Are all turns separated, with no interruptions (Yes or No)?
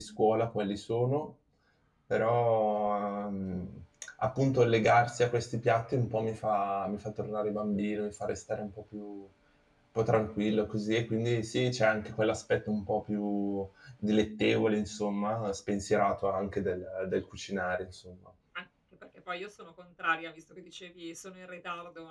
Yes